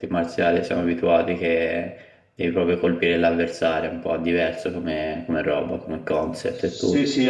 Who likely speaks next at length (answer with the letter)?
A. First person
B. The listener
B